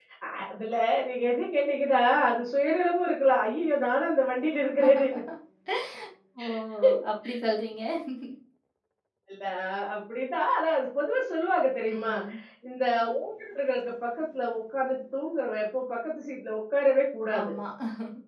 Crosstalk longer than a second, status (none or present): none